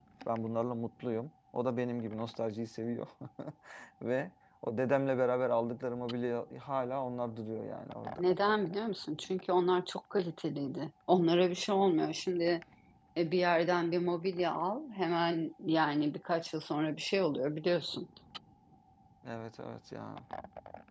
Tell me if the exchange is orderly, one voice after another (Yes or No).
Yes